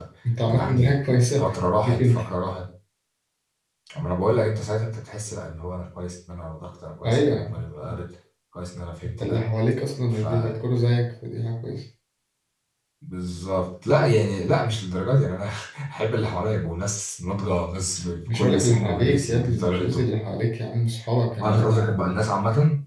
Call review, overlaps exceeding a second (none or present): present